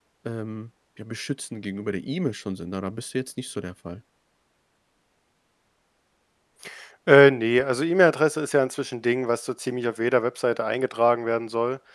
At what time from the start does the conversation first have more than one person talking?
none

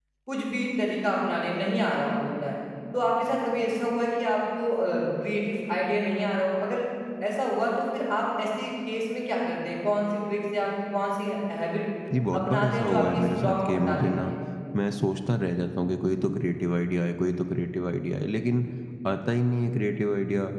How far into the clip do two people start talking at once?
12.3 s

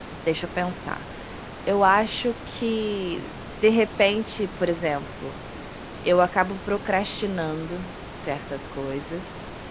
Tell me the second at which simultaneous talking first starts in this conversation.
none

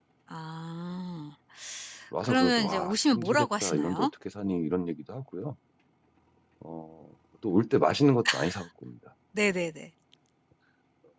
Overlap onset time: 2.2 s

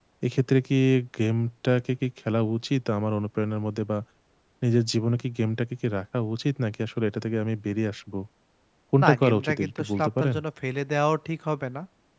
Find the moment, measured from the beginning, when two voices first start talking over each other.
9.0 s

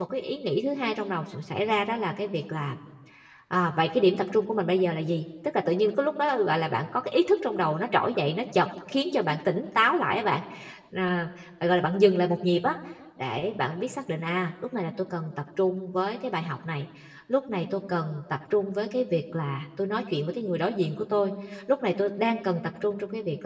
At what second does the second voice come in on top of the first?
none

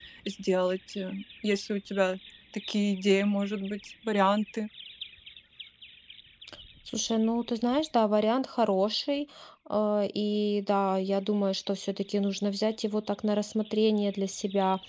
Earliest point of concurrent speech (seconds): none

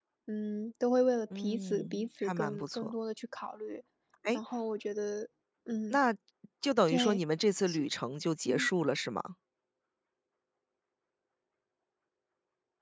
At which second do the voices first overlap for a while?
1.4 s

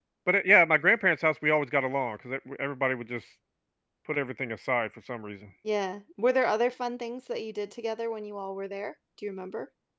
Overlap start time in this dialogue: none

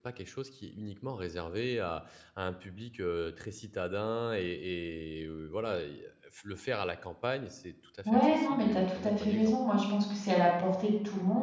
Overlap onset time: 8.1 s

